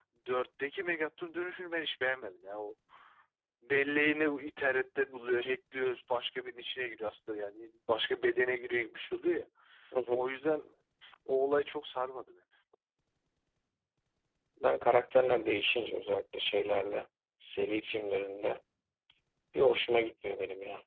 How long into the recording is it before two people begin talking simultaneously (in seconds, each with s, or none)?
none